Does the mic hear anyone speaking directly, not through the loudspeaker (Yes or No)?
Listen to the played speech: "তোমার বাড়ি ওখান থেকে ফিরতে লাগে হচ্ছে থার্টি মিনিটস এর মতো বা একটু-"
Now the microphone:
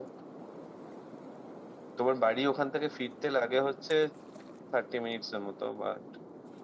No